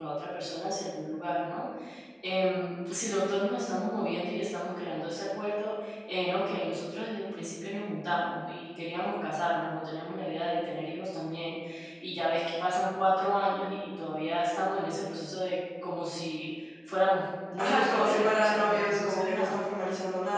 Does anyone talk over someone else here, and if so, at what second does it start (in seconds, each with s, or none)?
17.6 s